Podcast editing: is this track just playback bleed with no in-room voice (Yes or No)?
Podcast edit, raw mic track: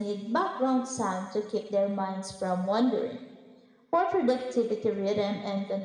Yes